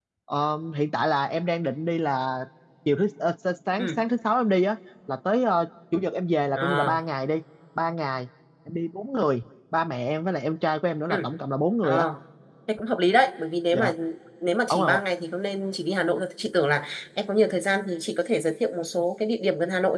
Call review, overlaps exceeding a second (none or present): none